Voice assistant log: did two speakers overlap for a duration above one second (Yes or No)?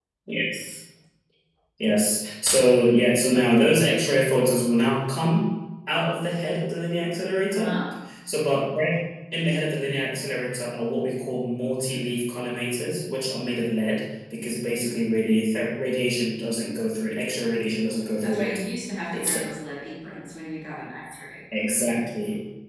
No